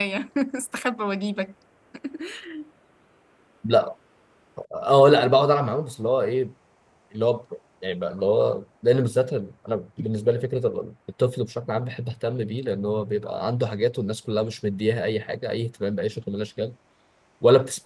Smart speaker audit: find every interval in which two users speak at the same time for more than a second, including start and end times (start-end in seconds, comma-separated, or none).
none